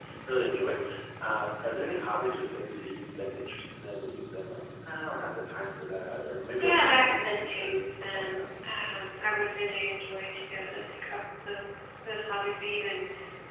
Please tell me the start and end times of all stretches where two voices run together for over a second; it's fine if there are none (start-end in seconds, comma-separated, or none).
6.6-8.3